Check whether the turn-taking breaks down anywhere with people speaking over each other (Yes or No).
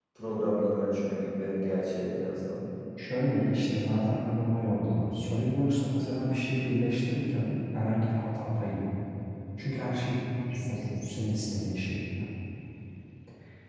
No